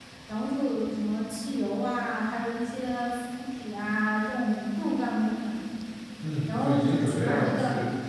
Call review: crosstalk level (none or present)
present